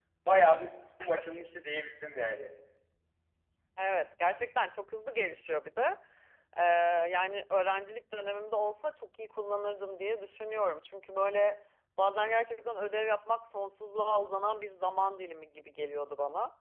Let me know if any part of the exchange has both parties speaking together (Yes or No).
No